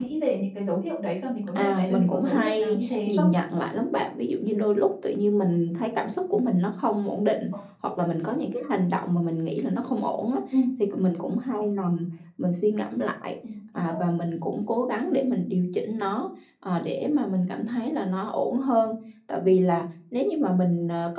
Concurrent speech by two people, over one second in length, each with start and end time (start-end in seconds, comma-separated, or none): 1.6-3.3